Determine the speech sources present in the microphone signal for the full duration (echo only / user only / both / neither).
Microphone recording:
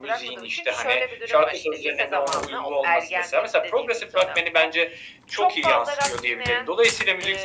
echo only